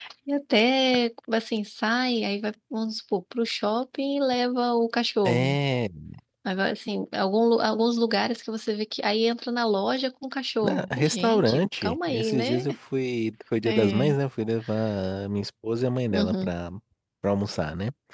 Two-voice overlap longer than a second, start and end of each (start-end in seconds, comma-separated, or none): 10.6-12.6